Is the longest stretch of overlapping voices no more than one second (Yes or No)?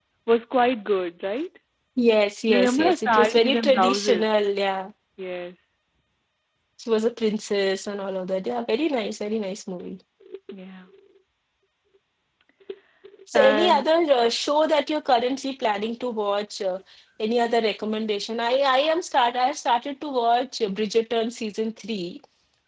No